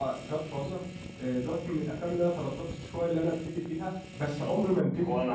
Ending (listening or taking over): listening